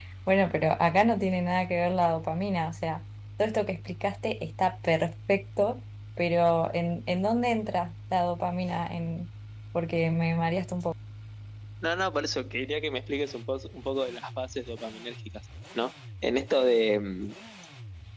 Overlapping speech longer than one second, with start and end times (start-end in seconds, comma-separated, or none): none